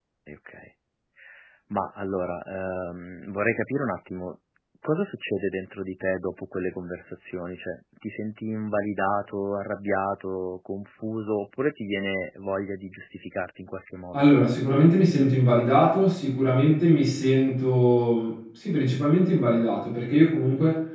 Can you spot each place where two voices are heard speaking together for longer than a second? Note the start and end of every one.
none

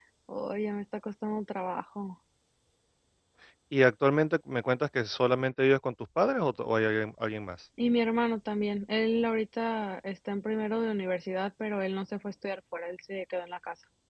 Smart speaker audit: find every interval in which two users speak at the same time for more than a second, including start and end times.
none

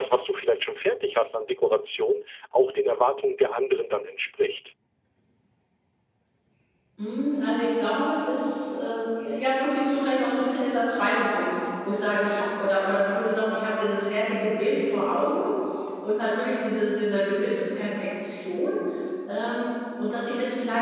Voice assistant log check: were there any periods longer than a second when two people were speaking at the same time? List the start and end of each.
none

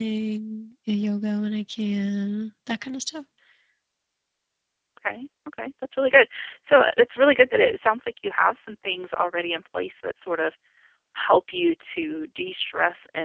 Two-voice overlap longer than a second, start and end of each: none

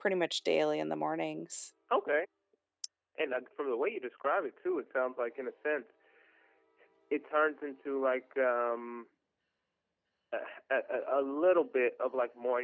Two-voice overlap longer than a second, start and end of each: none

